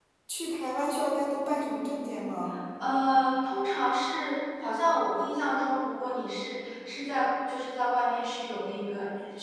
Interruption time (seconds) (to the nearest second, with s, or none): none